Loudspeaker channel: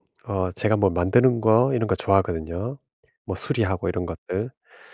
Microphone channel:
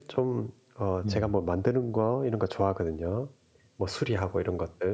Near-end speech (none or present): present